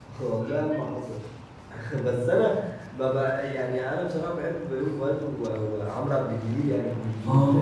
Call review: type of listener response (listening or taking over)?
taking over